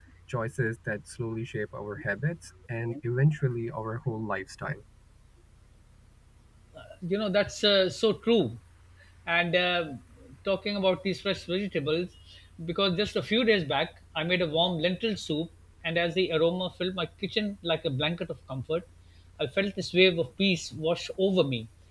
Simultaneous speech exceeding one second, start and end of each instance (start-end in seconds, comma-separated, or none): none